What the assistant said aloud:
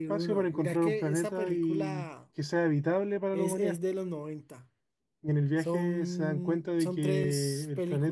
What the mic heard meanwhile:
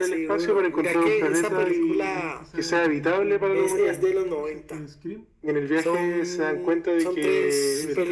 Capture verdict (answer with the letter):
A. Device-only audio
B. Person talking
B